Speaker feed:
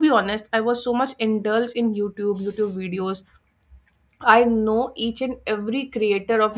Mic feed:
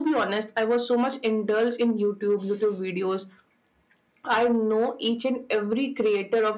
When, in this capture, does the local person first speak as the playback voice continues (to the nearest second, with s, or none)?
none